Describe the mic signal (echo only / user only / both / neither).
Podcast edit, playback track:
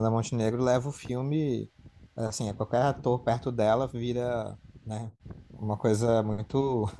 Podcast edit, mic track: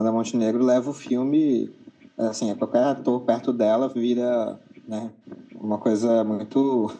echo only